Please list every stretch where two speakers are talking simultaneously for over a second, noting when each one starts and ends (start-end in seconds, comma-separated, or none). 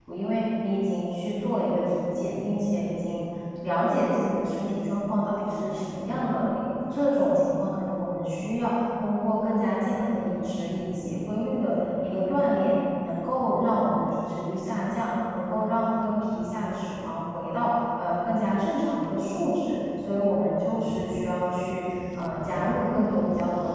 none